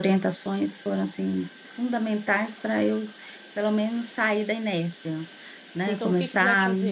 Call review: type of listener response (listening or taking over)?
taking over